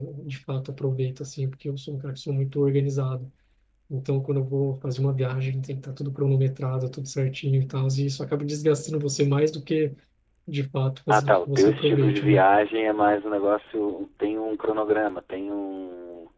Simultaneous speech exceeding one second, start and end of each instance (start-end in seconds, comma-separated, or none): 11.1-12.5